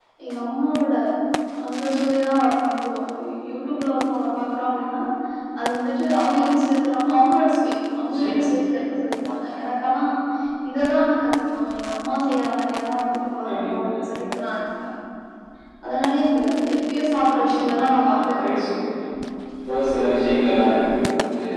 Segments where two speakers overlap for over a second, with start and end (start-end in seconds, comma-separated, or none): 17.3-18.6